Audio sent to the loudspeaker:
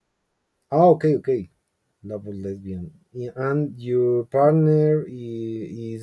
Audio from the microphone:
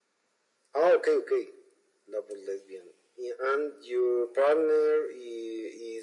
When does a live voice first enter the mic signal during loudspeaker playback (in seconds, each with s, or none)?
none